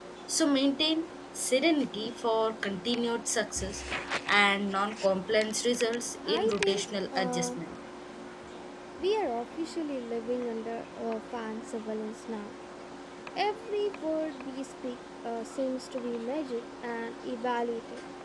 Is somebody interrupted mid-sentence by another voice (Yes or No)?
Yes